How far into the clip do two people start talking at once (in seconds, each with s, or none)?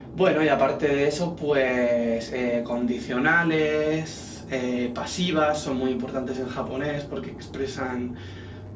none